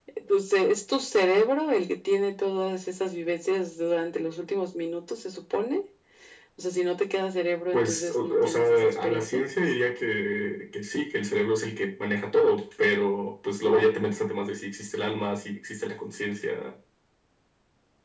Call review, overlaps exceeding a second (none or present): present